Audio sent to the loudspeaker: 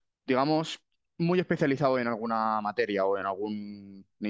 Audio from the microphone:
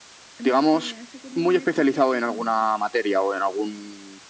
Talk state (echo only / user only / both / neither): both